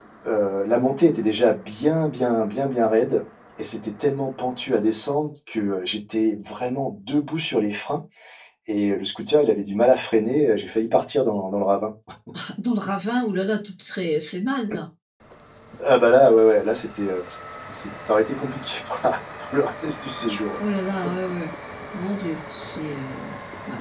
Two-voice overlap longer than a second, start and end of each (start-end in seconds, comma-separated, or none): none